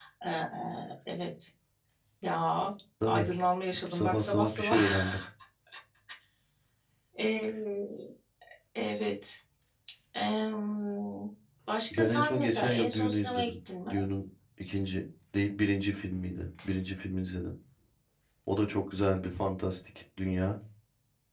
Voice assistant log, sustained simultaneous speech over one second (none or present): present